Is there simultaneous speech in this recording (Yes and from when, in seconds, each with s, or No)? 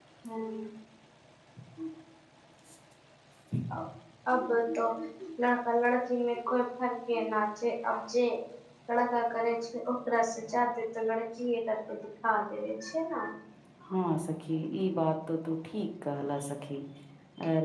No